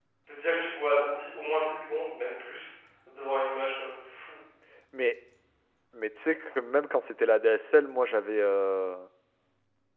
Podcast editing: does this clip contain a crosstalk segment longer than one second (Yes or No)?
No